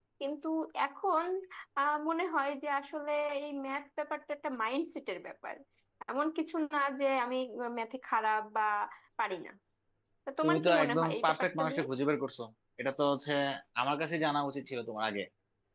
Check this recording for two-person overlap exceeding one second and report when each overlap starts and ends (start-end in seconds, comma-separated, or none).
10.4-11.8